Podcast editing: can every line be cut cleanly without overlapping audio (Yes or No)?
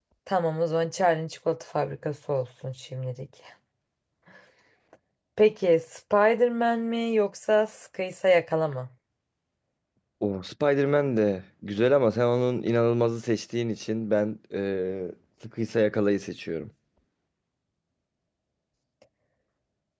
Yes